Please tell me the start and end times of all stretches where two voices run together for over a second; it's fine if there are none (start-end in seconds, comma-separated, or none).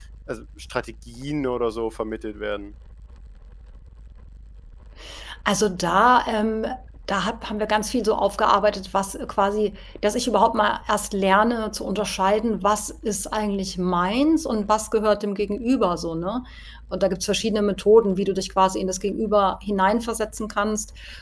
none